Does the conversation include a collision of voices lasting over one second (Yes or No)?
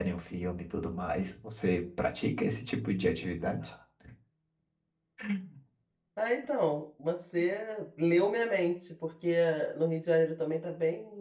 No